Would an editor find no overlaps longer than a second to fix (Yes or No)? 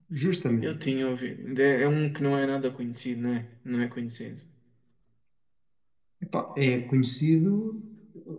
Yes